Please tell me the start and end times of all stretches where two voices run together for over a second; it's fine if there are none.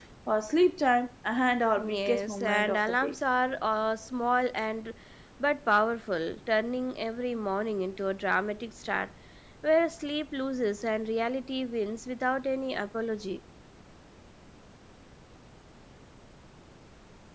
1.8-3.2

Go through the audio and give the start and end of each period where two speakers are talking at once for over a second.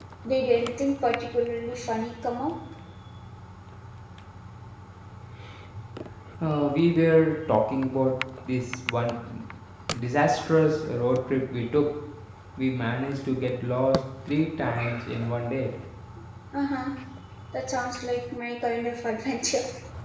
none

